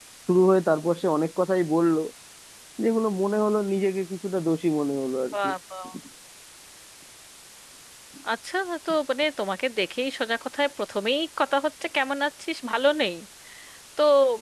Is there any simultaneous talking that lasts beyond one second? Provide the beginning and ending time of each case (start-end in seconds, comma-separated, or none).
none